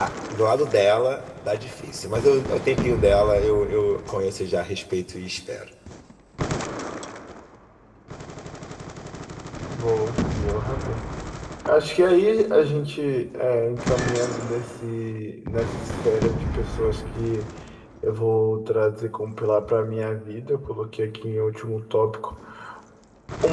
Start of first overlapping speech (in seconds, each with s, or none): none